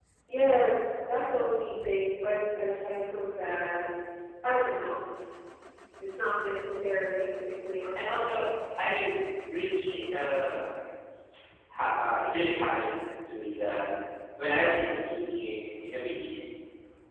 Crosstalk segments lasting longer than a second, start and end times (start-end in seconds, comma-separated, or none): none